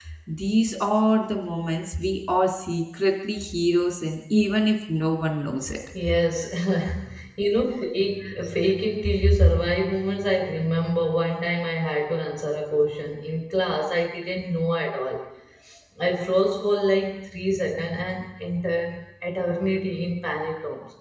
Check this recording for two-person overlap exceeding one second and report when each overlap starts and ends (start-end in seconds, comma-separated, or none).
none